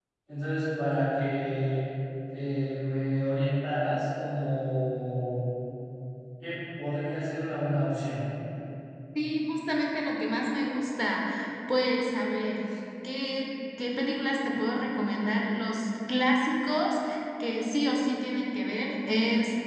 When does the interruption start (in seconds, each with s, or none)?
none